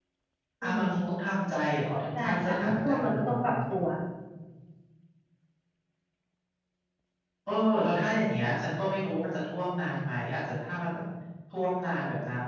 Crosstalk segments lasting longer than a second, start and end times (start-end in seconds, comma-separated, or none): 2.1-3.6